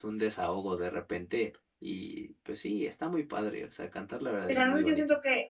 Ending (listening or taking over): taking over